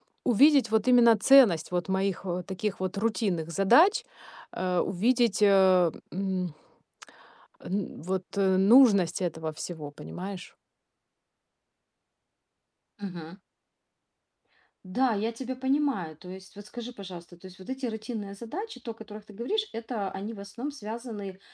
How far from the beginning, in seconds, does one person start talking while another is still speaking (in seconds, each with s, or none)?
none